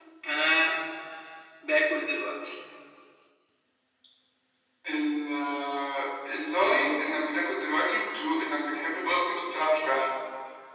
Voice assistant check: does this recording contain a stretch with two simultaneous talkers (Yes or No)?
No